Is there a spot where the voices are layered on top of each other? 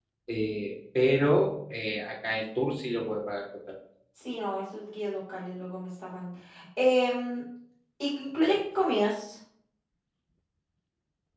No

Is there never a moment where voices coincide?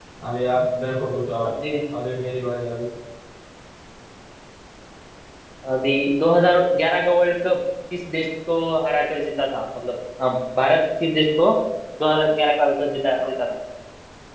Yes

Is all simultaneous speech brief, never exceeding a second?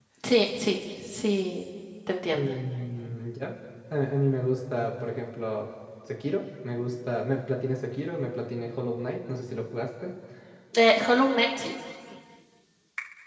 Yes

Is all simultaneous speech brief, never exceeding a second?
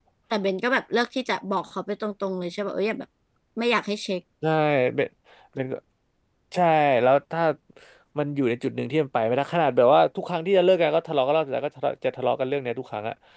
Yes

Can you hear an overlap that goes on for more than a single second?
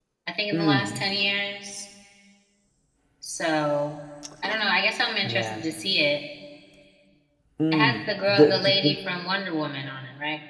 Yes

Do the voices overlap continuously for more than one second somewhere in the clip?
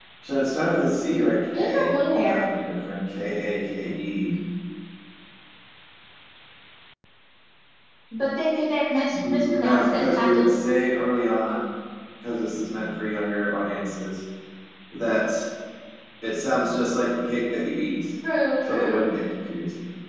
Yes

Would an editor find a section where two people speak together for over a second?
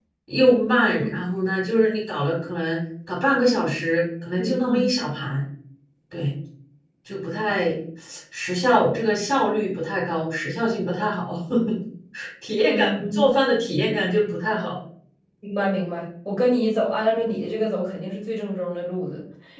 No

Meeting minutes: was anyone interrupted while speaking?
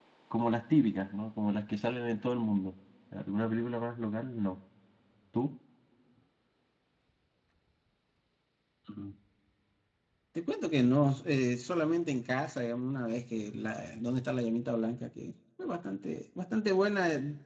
No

